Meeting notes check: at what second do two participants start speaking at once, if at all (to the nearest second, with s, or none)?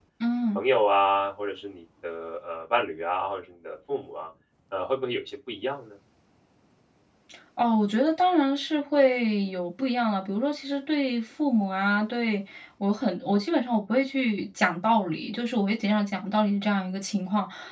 none